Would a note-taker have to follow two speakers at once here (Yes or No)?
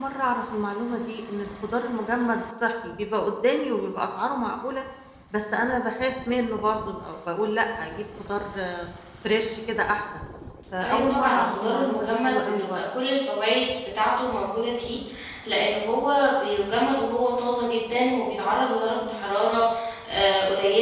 Yes